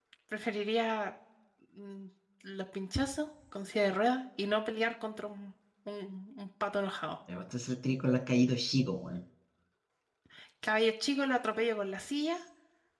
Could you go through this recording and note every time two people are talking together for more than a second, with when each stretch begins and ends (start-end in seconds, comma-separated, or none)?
none